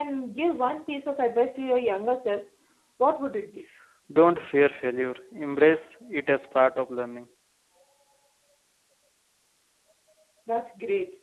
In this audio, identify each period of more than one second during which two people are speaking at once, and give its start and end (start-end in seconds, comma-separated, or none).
none